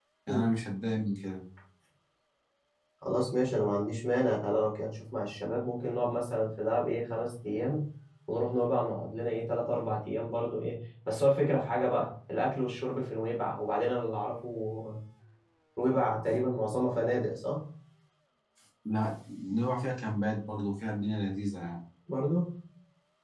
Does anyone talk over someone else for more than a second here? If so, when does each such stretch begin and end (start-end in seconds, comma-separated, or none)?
none